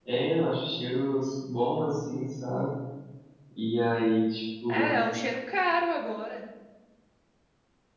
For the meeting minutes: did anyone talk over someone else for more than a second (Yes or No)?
No